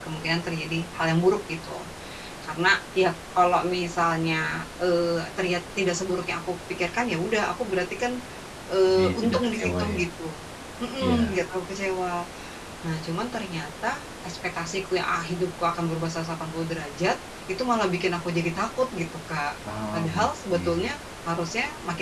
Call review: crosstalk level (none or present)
present